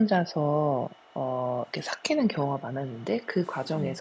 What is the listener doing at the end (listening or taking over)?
listening